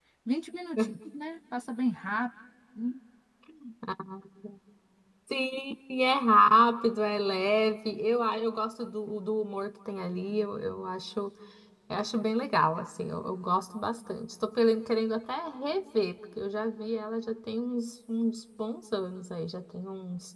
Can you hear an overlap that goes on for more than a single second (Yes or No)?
No